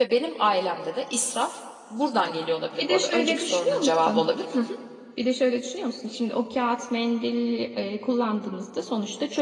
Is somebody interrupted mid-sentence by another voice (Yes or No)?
Yes